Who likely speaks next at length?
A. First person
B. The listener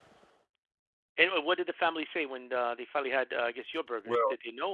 B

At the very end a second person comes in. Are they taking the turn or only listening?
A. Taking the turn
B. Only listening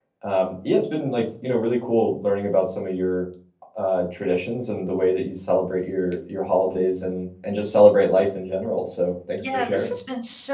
A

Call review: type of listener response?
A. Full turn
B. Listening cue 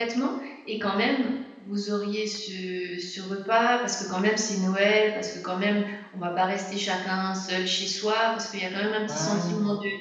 B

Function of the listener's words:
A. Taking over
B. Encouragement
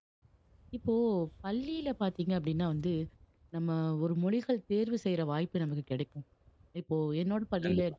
B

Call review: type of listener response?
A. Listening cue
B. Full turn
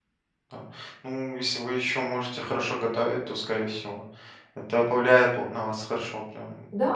B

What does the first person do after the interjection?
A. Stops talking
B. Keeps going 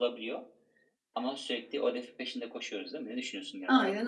A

